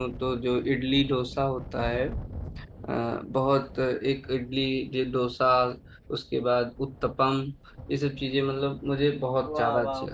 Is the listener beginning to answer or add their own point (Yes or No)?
Yes